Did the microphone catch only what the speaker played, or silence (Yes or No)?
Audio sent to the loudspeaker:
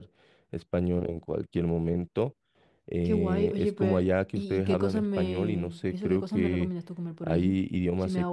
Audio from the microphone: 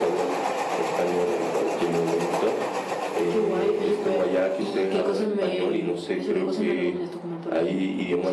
Yes